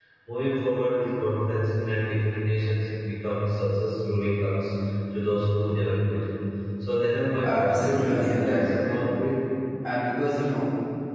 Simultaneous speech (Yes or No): Yes